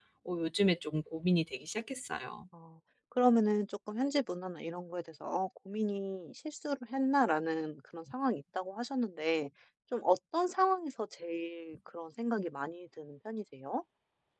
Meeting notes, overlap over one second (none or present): none